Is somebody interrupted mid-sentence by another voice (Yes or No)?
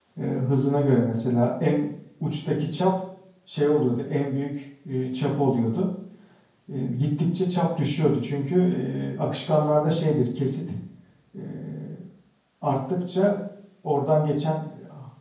No